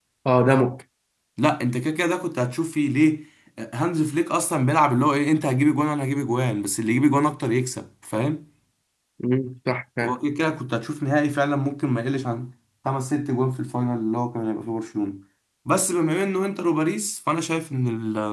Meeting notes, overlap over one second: none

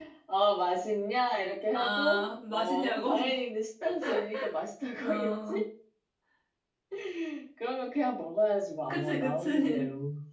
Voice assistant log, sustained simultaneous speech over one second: present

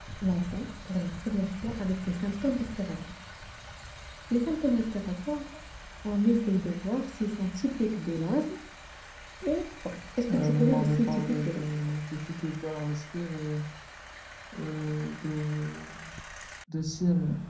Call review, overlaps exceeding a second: present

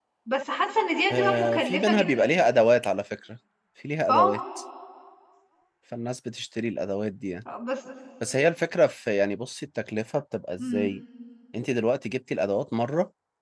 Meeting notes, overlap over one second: present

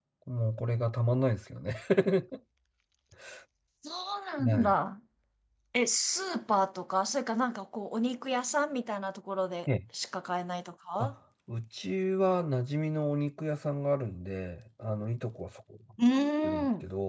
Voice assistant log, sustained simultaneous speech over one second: none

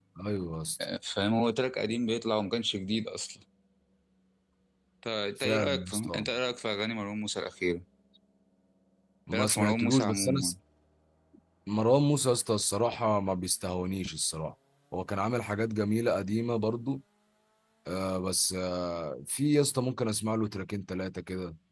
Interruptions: present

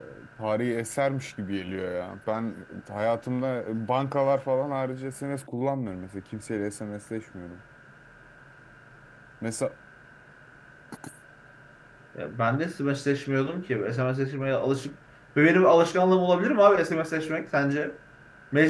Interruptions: none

